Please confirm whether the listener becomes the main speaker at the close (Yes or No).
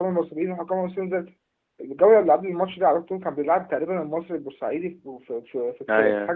No